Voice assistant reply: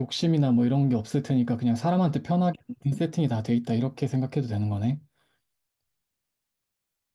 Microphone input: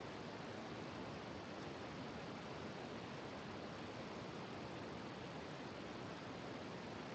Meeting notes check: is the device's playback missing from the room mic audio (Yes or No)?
Yes